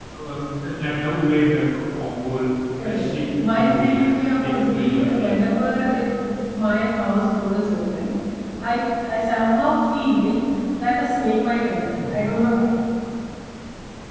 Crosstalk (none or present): present